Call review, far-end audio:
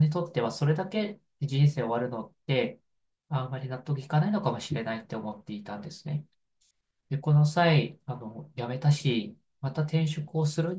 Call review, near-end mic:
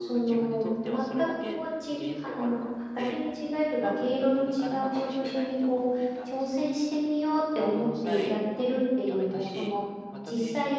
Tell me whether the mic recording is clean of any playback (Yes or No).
No